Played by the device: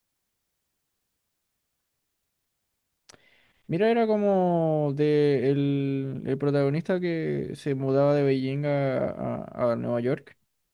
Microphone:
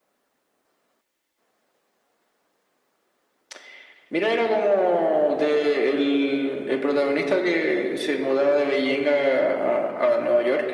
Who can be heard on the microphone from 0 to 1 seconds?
neither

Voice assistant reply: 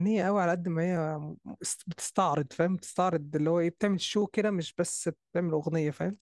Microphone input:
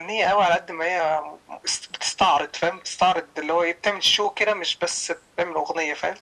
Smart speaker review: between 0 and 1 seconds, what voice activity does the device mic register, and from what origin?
echo only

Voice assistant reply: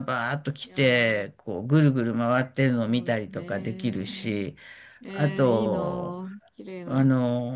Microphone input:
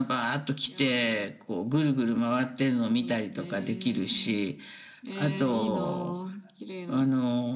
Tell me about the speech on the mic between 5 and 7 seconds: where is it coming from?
echo only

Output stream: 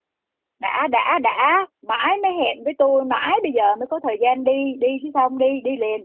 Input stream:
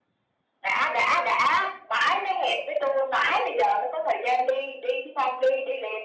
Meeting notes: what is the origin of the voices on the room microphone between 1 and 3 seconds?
echo only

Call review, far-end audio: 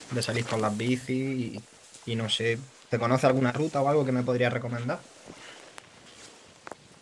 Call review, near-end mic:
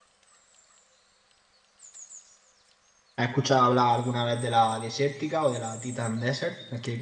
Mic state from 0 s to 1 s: neither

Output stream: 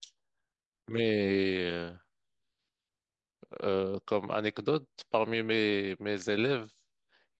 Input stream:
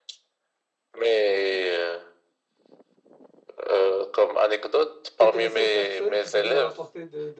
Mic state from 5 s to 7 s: both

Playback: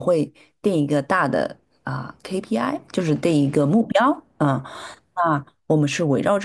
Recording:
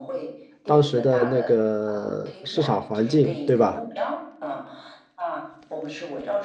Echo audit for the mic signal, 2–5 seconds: both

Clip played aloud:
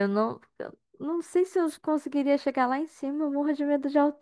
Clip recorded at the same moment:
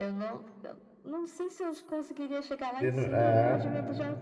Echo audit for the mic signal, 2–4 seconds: both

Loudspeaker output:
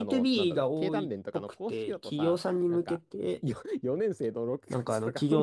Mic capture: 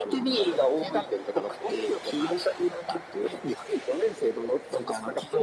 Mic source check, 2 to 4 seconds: echo only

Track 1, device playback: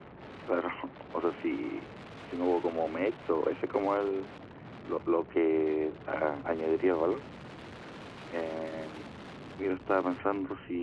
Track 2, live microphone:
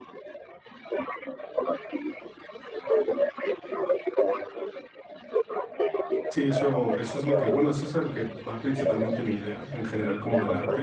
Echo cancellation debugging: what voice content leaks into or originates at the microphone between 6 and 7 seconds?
both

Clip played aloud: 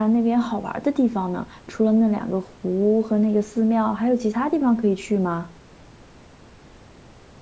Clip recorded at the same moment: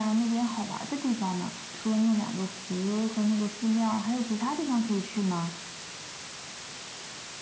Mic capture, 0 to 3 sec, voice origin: echo only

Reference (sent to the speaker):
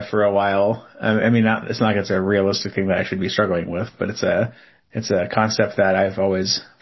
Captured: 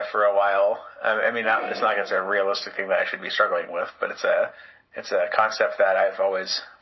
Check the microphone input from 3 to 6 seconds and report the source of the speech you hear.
echo only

